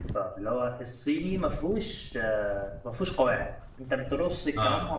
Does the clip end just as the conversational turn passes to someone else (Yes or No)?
No